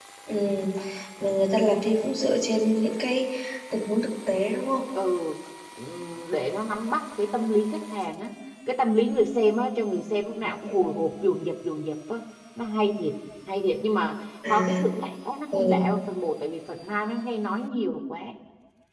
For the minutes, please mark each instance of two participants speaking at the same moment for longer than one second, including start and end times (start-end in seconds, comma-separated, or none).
none